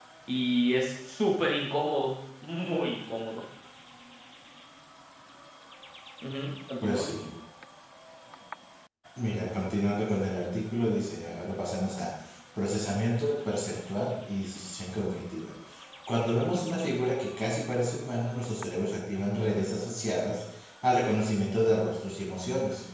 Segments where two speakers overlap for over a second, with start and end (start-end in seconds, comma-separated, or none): none